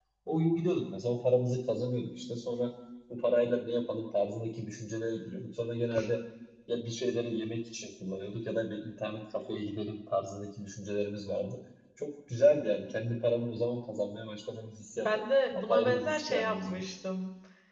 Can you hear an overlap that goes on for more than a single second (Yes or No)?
Yes